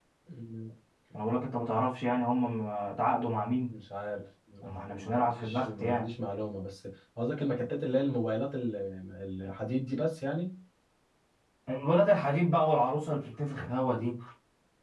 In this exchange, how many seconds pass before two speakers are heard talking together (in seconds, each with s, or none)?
4.6 s